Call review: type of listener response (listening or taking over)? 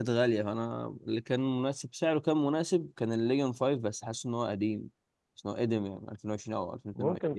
taking over